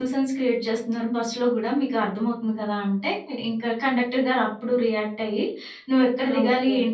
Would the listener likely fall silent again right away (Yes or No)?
Yes